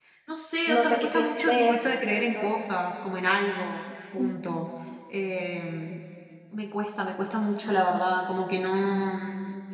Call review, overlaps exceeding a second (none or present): present